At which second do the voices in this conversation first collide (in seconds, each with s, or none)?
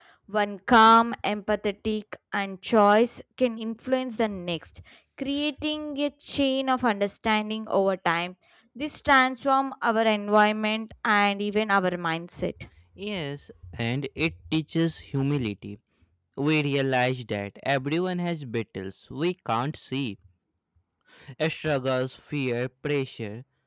none